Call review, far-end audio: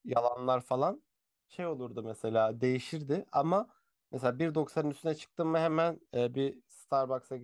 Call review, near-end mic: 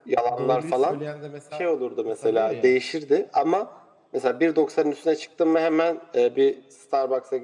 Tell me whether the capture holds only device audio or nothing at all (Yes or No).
No